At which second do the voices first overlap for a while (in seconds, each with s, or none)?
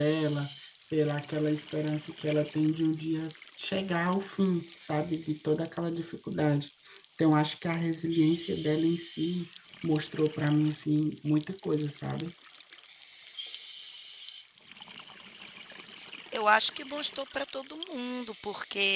none